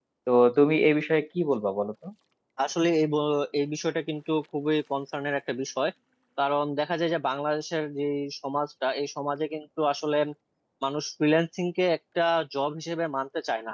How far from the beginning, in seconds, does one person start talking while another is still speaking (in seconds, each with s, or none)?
none